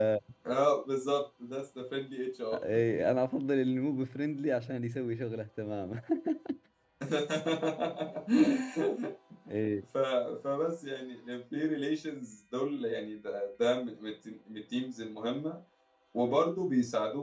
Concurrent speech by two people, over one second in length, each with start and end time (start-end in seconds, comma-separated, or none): none